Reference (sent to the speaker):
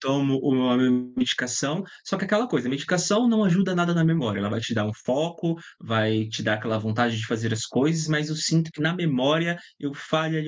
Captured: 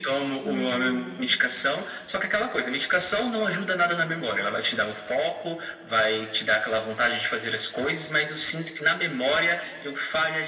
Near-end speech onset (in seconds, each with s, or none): 0.4 s